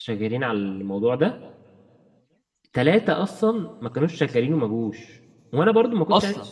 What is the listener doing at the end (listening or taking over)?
listening